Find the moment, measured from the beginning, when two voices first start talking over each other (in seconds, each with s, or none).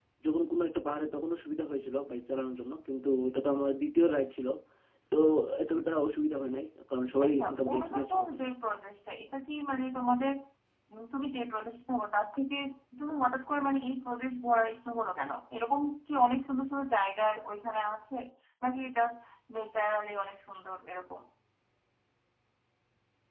7.2 s